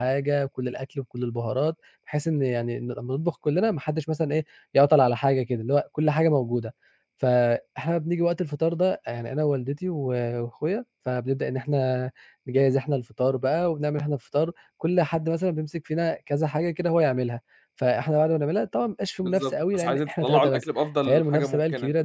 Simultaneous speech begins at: 19.2 s

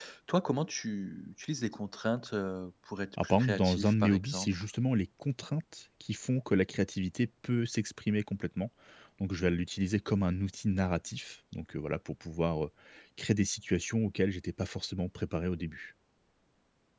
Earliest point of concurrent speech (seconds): 3.2 s

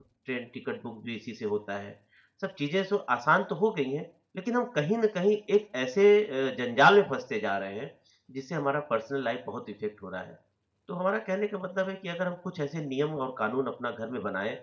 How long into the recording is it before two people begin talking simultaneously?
none

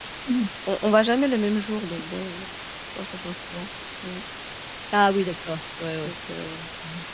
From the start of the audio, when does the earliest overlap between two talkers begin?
none

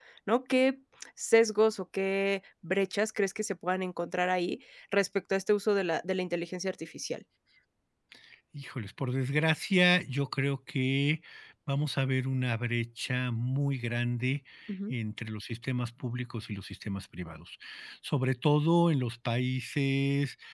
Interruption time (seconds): none

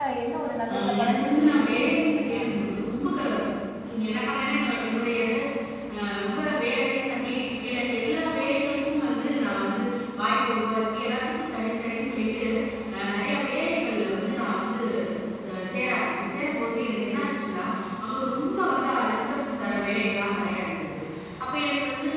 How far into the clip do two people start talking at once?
0.7 s

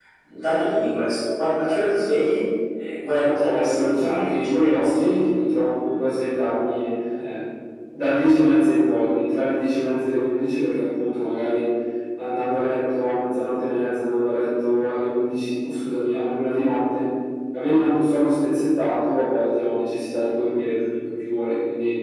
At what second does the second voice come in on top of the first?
3.0 s

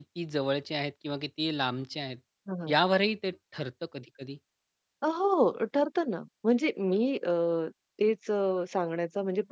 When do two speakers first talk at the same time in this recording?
none

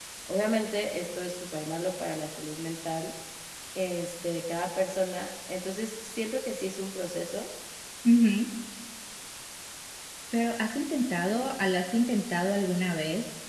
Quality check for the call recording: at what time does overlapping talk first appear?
none

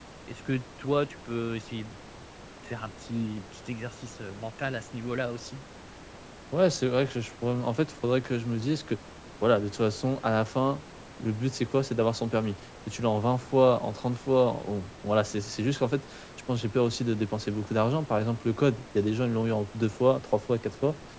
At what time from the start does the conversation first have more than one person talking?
none

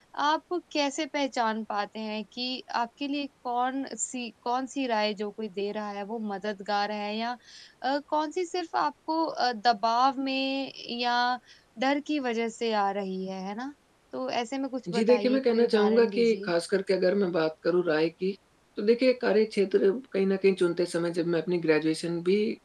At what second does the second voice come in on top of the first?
14.9 s

